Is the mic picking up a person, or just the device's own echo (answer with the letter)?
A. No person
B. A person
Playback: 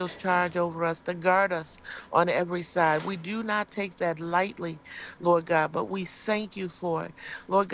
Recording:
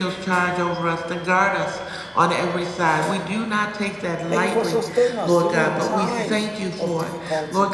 B